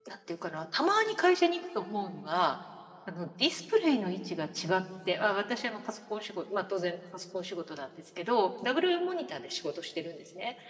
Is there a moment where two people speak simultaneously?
No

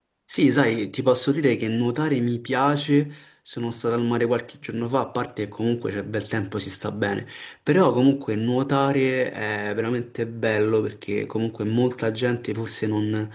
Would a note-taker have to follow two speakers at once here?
No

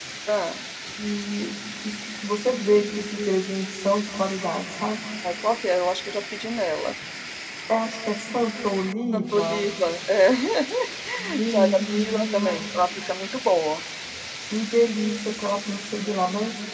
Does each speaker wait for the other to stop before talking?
No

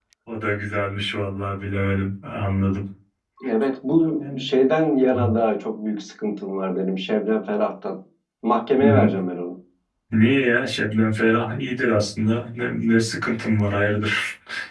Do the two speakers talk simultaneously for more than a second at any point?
No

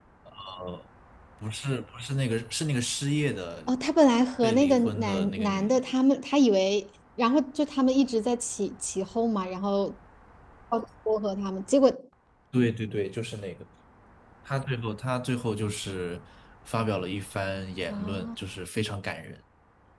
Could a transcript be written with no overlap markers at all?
No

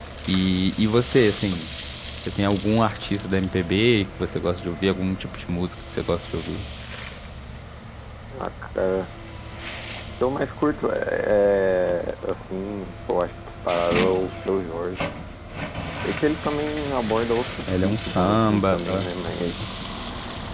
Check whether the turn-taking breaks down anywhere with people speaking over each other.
Yes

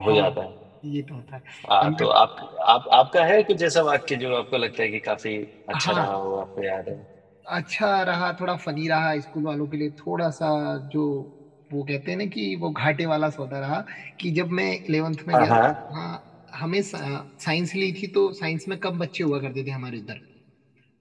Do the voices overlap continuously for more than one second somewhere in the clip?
No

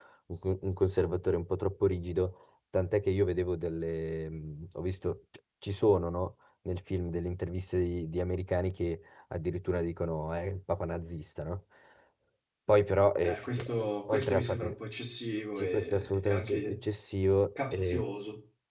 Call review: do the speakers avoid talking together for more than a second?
No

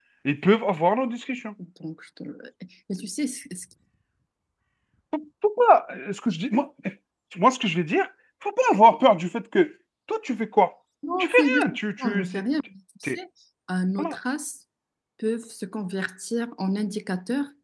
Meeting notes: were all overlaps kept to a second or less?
No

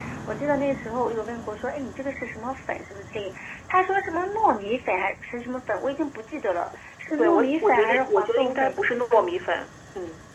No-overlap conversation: No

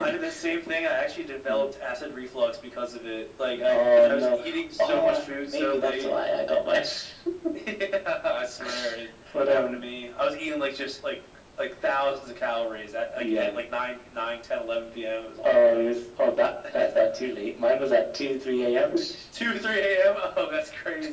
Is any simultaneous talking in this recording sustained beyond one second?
Yes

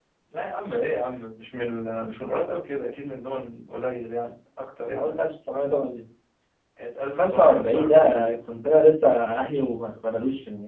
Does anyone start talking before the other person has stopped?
Yes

